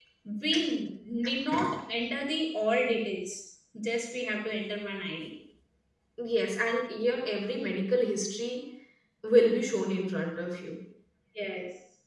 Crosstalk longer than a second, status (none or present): none